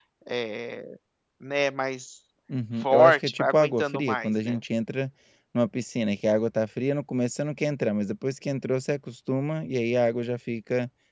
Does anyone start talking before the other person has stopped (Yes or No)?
Yes